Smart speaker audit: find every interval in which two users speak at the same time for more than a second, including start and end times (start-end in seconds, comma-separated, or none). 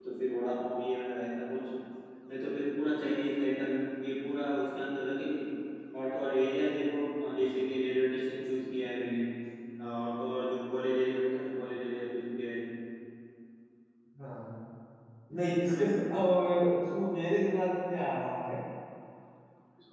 none